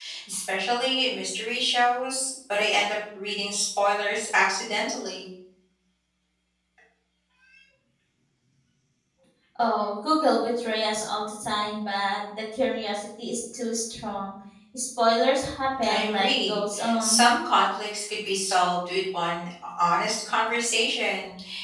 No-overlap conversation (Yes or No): No